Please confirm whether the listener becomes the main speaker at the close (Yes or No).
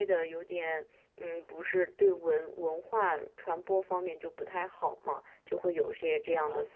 Yes